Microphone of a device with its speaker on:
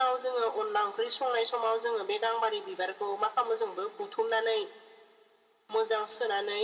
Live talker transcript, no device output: none

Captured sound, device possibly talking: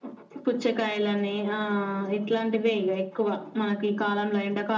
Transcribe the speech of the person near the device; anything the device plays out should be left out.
none

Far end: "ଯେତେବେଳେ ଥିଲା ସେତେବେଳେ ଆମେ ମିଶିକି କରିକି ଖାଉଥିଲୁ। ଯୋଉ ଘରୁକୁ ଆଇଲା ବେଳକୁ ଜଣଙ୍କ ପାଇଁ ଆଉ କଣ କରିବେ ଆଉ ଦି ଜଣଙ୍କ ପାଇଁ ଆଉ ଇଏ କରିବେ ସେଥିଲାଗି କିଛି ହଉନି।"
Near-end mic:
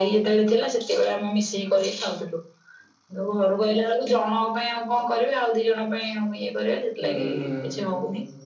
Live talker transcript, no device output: ହୁଁ ହୁଁ

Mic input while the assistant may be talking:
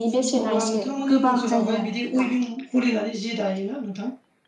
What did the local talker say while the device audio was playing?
अब्ला नोंथांमोननि ओनसोलावहाय बिदि उइभिं खुलिनानै जि दायोना नोंथां

